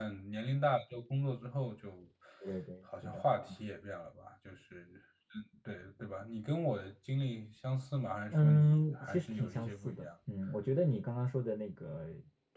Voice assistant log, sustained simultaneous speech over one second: present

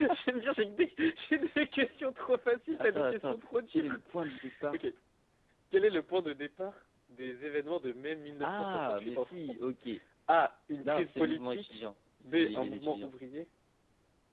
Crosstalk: present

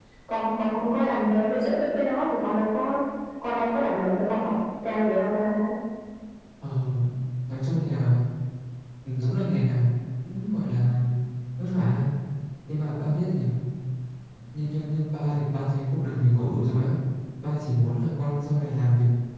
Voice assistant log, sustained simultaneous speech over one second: none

